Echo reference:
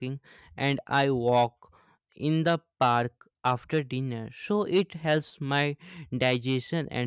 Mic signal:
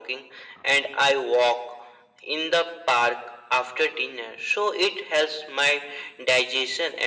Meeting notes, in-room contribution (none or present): none